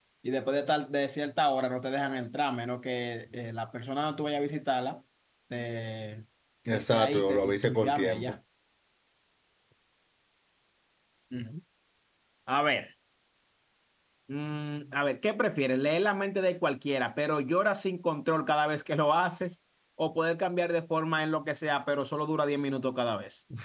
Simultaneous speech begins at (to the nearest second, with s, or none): 7 s